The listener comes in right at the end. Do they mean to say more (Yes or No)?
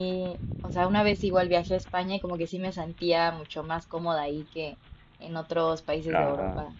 Yes